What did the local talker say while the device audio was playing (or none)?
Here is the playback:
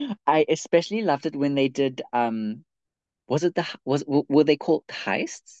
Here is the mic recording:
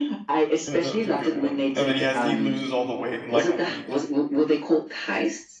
Yeah, that was a good one. And then he has to, he loses all the weight in like a week.